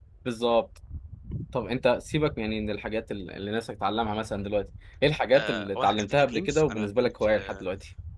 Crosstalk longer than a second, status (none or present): present